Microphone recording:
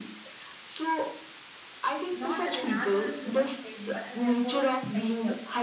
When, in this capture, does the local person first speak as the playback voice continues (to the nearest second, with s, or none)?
2 s